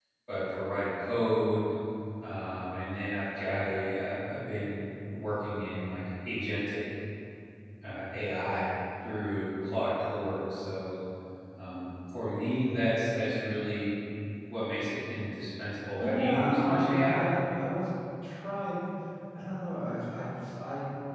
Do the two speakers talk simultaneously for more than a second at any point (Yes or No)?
Yes